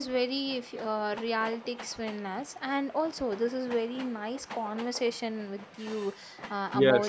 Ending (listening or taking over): listening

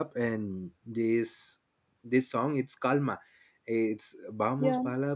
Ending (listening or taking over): listening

